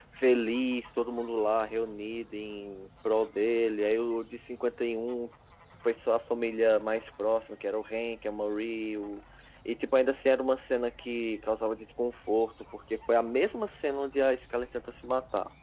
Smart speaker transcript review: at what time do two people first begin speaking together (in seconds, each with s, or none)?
none